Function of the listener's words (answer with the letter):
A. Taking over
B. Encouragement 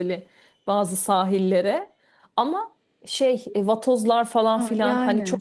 A